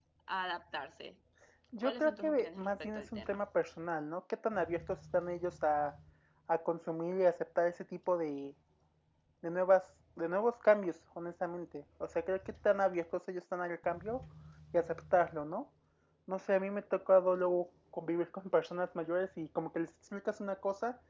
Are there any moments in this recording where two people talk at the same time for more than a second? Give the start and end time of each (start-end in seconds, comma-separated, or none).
1.8-3.4